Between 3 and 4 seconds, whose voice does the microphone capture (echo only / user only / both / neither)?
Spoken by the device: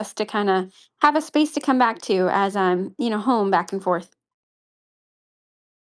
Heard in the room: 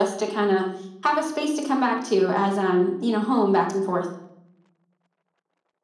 echo only